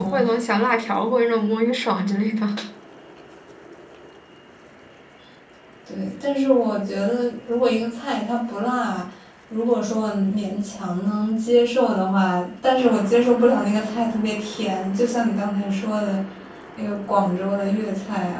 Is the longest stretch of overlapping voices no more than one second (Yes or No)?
Yes